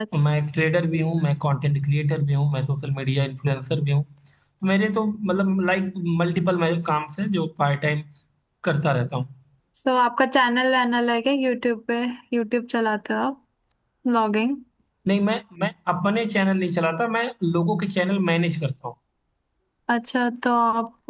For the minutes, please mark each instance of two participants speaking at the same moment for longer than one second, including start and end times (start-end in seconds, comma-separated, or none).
none